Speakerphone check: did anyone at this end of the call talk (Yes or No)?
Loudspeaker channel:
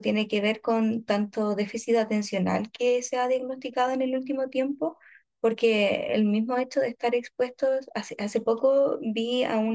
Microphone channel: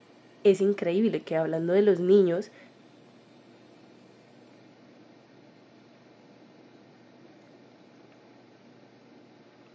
Yes